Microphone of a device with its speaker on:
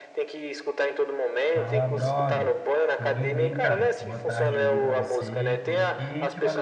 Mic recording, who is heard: both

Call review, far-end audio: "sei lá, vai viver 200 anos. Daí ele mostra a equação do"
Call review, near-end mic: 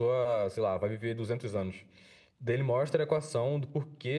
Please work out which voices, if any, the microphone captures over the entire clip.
echo only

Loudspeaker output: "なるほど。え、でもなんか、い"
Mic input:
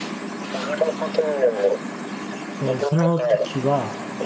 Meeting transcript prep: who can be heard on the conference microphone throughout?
both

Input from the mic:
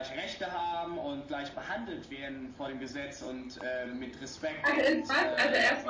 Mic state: both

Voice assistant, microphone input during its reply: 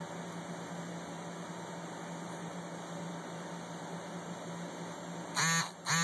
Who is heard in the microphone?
neither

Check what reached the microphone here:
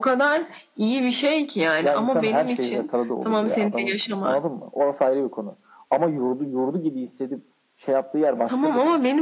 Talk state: echo only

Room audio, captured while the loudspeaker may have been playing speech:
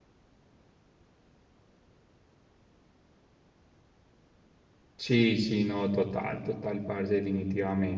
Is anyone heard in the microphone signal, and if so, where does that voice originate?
user only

